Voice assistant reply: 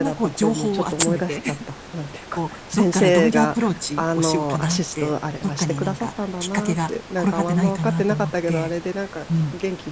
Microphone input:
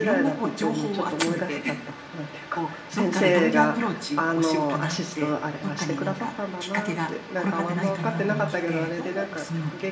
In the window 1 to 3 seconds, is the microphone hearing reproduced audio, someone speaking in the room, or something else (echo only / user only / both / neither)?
echo only